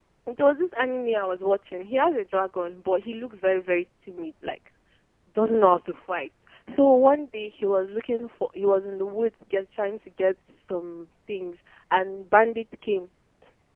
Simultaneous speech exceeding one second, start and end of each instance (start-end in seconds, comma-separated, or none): none